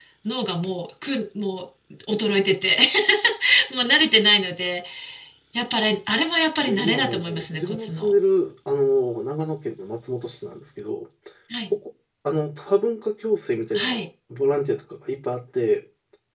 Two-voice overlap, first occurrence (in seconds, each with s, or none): 6.7 s